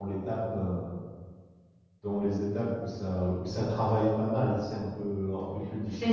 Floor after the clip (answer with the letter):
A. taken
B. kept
A